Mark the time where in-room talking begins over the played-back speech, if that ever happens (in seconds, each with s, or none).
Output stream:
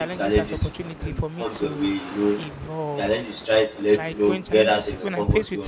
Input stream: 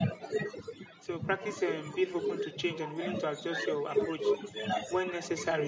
1.0 s